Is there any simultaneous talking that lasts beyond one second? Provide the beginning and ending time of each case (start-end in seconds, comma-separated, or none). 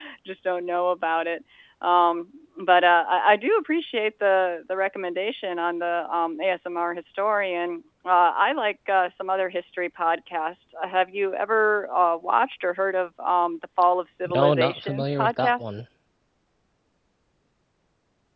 14.2-15.7